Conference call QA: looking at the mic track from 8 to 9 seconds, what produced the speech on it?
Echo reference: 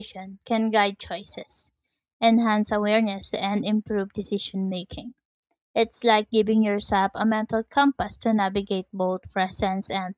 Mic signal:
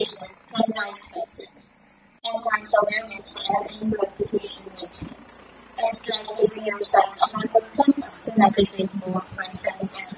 echo only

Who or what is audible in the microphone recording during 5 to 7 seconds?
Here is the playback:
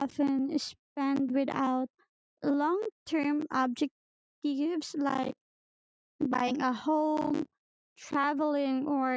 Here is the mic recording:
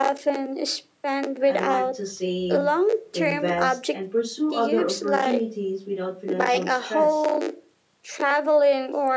both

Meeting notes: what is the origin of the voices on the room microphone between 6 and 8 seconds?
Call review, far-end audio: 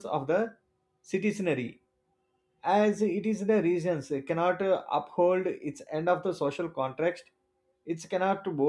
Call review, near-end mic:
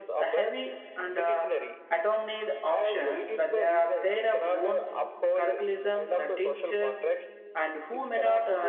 both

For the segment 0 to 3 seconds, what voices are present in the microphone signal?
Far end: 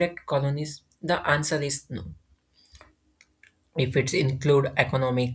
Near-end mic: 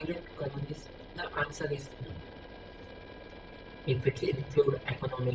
echo only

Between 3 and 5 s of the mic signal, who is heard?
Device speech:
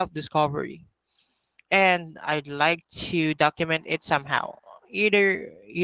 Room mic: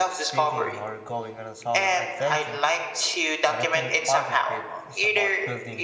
both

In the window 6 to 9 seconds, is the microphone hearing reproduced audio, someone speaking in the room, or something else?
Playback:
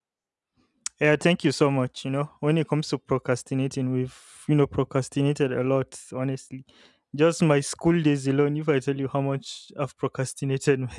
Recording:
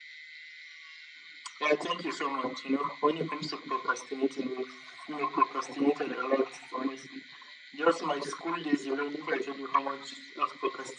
echo only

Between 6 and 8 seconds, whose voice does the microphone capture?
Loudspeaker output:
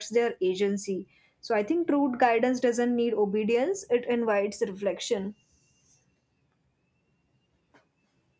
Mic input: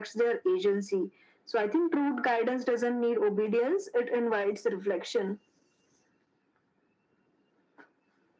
neither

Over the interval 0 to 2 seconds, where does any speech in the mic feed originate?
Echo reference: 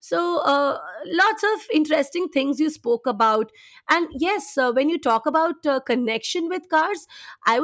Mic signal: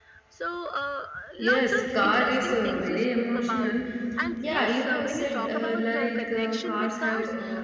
both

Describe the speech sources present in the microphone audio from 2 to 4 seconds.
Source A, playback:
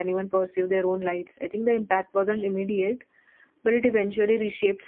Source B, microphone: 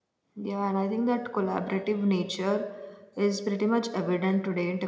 user only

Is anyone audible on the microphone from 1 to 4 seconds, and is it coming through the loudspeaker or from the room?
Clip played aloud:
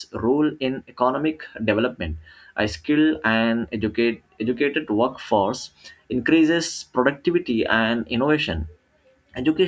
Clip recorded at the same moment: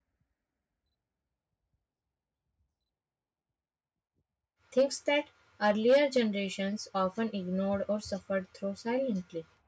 neither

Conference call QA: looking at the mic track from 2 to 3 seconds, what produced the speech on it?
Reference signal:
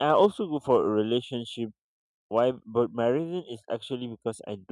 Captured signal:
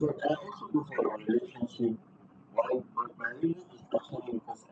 echo only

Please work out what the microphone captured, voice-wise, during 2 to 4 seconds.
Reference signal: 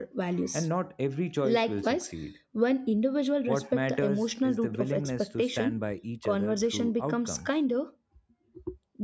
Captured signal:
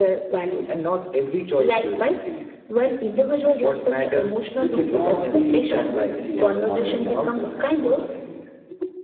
echo only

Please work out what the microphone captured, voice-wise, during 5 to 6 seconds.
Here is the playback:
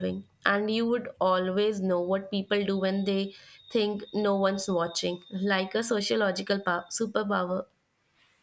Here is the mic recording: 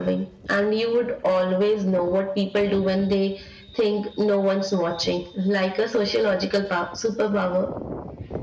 echo only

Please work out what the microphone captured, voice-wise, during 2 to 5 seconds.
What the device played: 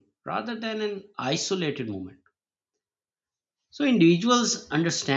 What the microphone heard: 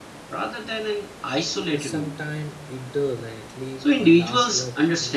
both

